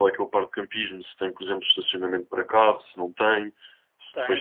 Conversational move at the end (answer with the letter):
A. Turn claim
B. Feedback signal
A